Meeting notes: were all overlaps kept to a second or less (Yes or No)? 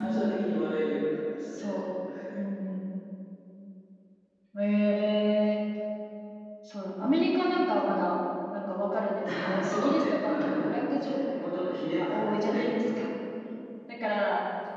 No